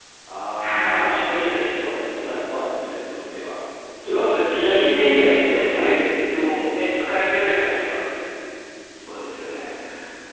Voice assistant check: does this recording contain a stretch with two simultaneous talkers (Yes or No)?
Yes